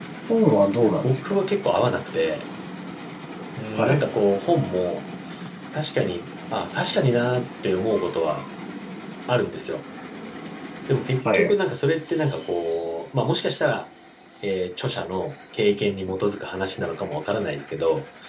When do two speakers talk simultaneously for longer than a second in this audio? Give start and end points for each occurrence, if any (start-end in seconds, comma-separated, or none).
none